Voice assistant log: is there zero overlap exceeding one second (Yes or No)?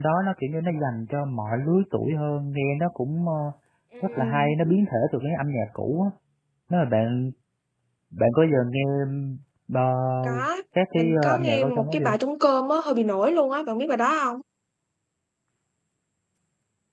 No